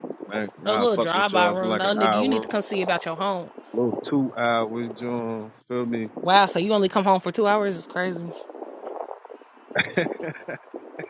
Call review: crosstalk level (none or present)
present